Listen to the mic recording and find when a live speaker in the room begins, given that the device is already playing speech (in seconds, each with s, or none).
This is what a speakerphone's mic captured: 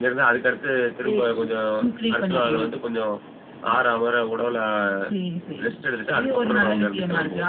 1.0 s